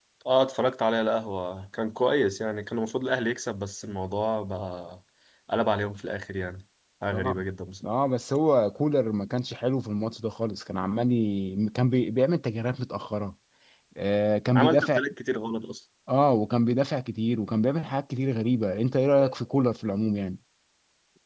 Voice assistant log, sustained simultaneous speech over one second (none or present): none